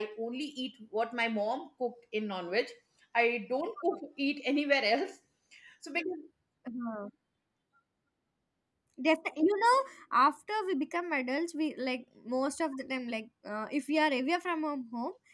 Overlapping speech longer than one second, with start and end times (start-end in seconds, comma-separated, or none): none